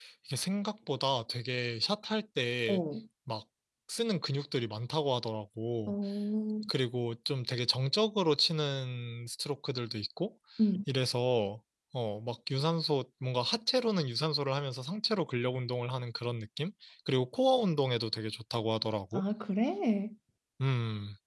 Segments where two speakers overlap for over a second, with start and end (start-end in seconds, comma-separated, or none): none